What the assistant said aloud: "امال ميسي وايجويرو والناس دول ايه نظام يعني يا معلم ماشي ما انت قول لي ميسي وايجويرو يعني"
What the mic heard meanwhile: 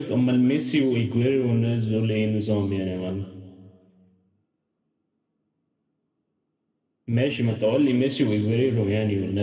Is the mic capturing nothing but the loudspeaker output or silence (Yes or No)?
Yes